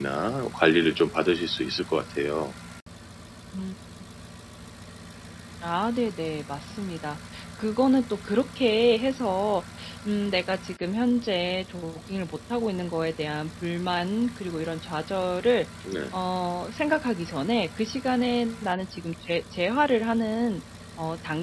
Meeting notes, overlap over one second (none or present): none